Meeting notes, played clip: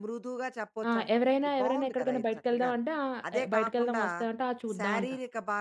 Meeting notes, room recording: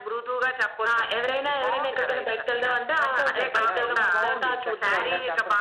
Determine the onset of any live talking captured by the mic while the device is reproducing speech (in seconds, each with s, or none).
3.0 s